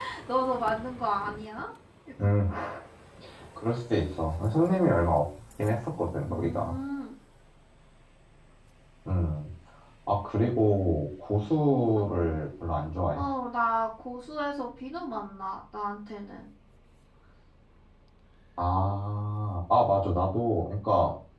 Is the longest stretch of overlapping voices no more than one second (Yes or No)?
Yes